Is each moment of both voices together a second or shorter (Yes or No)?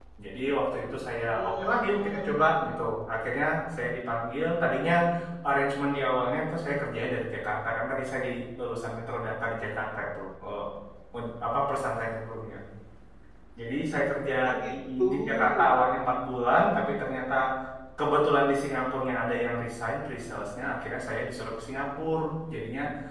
No